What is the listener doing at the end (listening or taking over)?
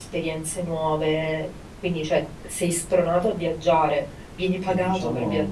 taking over